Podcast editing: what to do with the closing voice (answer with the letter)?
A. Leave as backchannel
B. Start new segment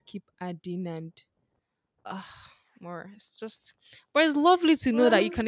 A